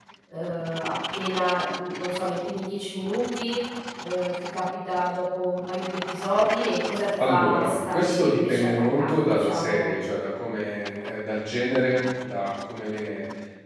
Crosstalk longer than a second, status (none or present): present